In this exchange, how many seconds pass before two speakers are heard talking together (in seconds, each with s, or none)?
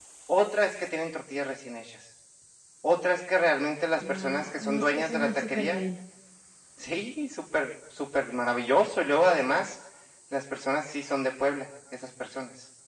4.0 s